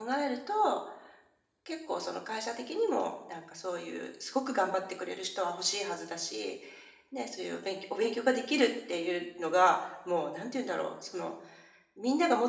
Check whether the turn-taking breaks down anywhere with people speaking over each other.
No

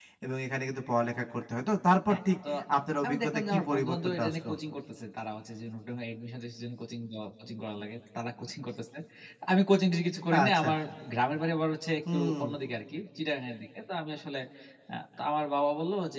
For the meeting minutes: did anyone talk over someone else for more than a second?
Yes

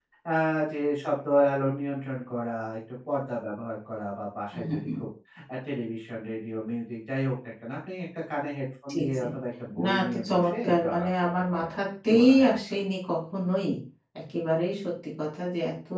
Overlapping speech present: Yes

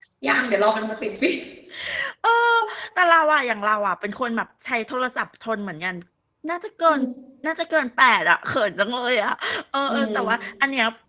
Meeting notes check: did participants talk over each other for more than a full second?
No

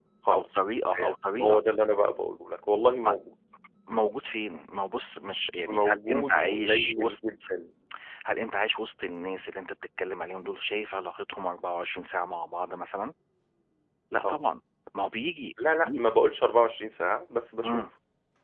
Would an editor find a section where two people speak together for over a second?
Yes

